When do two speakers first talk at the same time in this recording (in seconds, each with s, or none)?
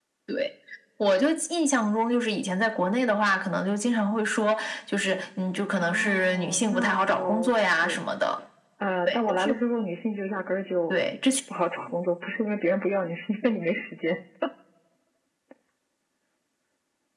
5.8 s